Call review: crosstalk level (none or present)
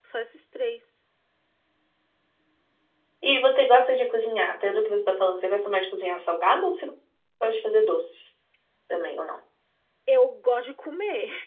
none